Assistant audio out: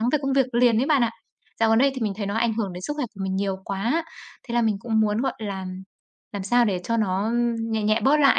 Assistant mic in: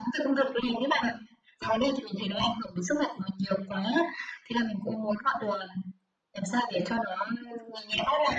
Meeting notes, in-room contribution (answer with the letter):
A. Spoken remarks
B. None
B